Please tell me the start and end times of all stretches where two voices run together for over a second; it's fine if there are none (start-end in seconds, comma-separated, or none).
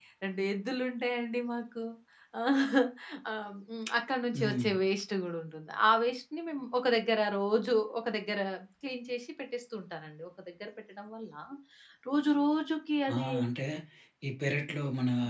none